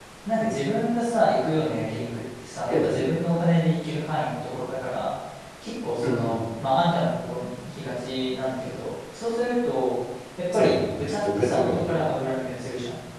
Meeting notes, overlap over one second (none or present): present